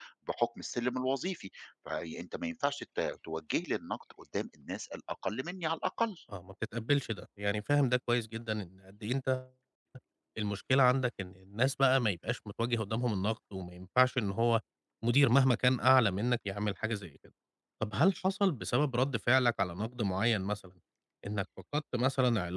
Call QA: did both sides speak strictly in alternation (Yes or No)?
Yes